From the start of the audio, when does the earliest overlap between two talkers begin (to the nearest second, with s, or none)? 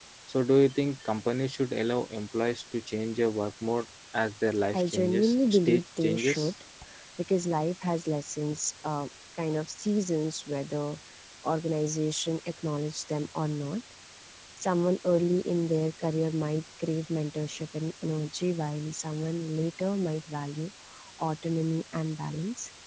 5 s